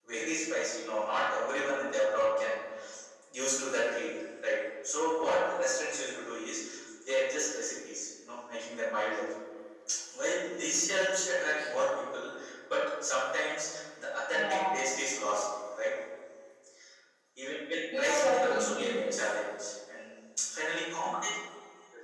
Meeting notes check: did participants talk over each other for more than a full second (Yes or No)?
Yes